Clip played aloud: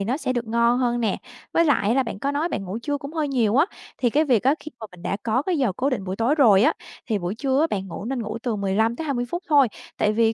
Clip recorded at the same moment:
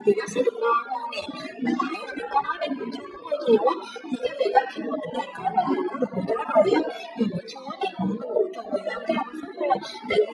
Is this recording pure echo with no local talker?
Yes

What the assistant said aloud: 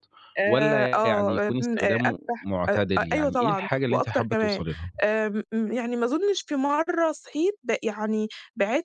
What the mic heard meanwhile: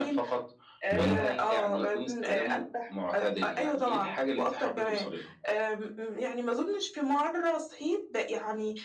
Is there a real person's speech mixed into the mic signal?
Yes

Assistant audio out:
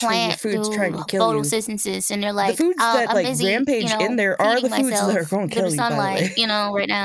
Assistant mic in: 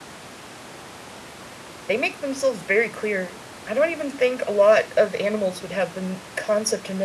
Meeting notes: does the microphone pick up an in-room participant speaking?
Yes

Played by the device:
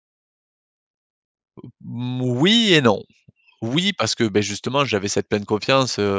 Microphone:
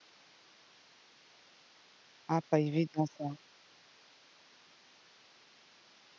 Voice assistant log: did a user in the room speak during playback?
Yes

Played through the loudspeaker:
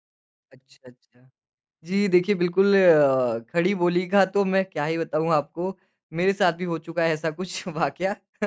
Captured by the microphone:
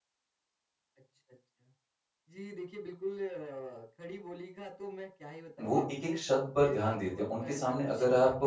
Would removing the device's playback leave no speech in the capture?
No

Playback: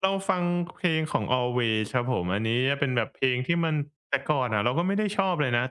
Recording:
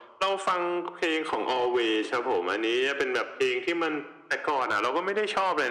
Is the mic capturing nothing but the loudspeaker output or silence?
Yes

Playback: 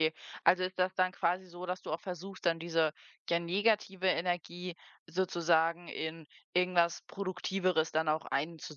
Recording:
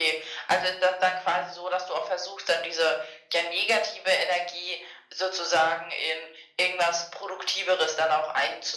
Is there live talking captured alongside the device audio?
No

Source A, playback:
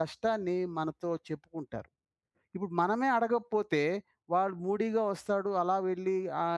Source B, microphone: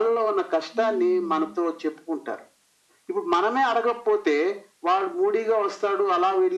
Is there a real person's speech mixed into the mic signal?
Yes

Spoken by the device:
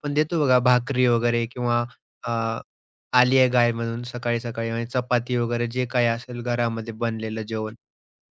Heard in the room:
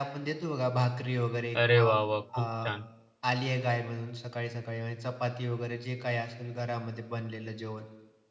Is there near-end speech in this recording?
Yes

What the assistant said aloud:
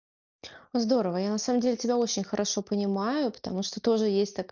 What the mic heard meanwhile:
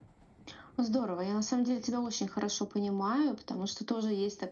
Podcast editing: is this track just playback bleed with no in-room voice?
Yes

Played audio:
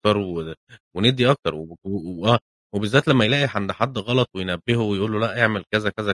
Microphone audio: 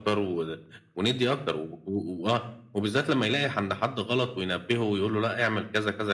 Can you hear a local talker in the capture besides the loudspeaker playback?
No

